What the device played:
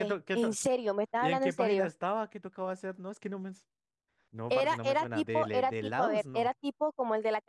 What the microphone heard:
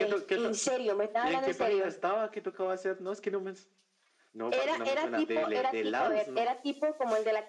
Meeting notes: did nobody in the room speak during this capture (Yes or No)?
Yes